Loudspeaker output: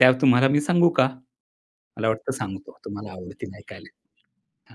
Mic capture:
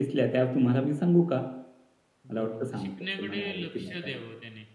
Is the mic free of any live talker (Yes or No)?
No